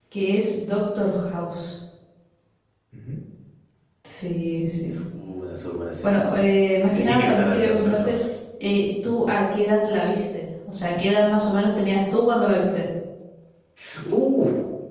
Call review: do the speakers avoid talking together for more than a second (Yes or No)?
No